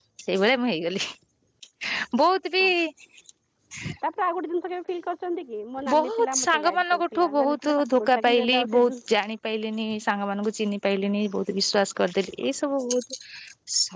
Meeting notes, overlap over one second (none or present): present